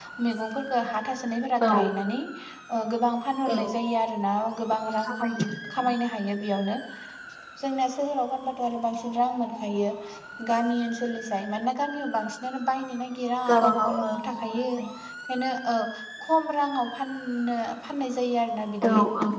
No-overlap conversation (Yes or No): No